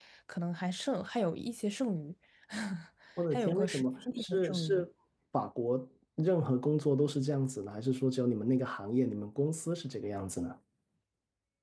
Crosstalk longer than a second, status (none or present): present